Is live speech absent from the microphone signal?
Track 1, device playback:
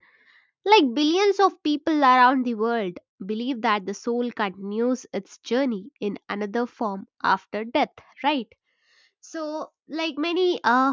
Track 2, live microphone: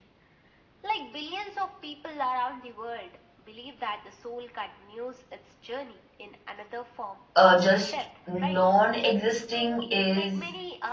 No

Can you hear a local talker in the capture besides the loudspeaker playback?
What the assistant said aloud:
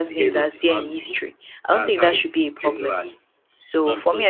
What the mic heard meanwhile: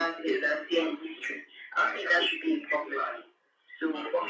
No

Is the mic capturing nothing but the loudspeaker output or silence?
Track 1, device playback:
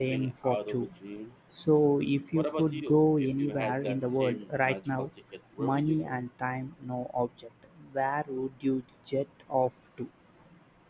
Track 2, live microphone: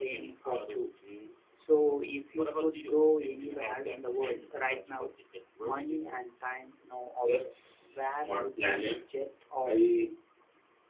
No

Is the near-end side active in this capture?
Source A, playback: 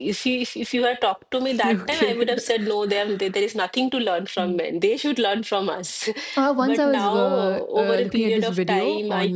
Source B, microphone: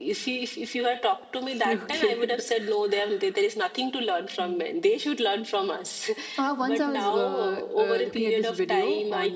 No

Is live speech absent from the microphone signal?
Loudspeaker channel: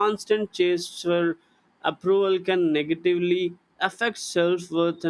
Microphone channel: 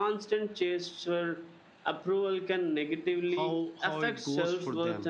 No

